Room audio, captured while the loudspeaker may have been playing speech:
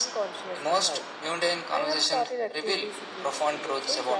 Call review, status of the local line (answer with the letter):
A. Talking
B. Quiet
B